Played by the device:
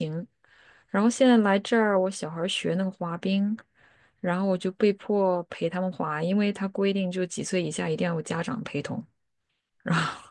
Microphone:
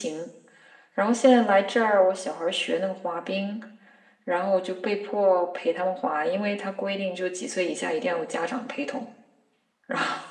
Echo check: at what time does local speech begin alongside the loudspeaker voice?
none

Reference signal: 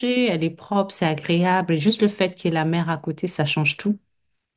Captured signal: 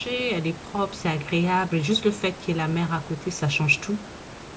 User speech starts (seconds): none

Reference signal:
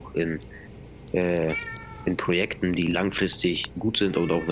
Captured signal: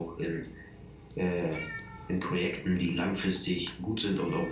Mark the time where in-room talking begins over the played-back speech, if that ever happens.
none

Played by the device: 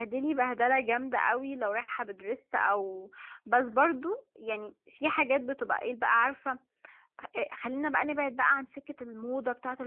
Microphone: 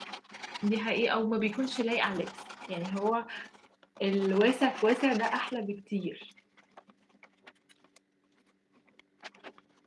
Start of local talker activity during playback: 1 s

